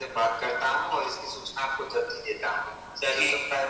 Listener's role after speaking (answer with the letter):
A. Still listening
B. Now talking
A